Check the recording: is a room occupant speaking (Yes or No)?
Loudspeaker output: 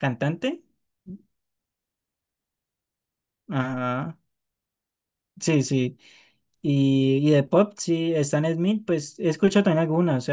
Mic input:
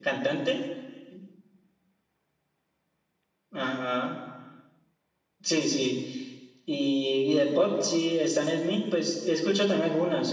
No